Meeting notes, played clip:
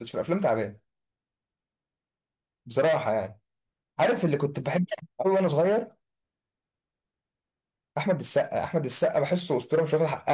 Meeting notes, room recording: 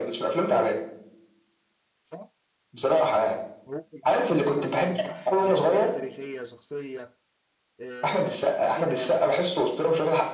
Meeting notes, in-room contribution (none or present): present